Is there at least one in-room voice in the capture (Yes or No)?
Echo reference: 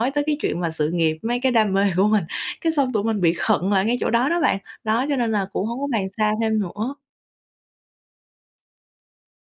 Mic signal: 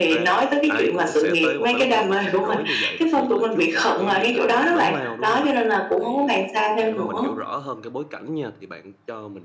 Yes